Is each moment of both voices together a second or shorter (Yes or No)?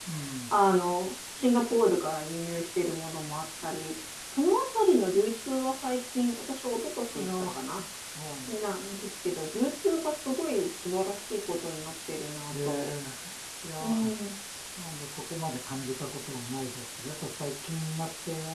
Yes